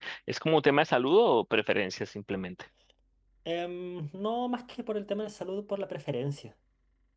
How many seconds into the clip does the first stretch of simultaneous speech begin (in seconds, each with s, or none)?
none